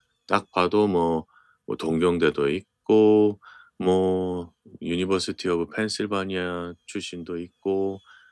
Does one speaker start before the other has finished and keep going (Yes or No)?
No